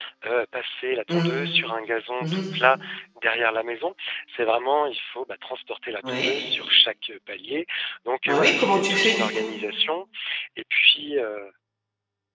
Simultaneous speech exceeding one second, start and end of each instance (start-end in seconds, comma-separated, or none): 8.3-9.5